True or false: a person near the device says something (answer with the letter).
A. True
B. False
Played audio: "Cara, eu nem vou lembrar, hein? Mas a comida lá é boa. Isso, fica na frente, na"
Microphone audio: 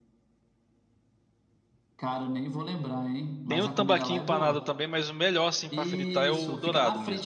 A